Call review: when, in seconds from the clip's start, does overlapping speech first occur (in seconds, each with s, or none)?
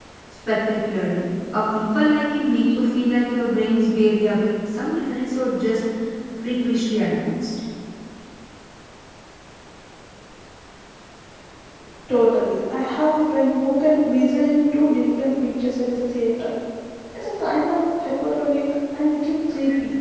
none